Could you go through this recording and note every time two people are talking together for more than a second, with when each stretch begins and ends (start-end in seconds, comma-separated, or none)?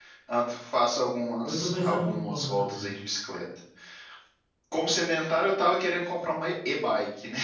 1.4-2.9